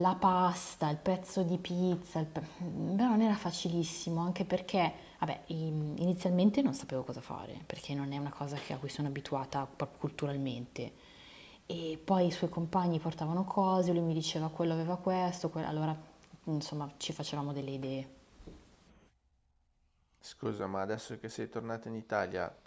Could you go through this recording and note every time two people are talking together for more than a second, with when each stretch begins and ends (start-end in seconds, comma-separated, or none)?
none